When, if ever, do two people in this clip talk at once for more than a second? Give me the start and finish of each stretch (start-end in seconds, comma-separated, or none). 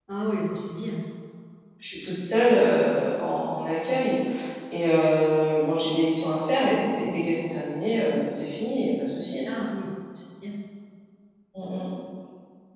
none